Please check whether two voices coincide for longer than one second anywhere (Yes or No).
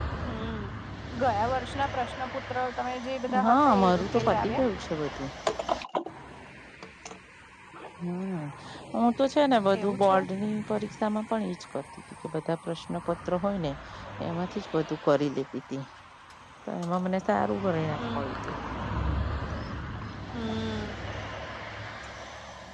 Yes